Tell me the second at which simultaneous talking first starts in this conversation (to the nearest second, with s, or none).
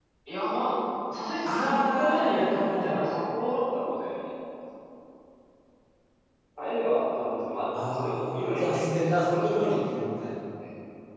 1 s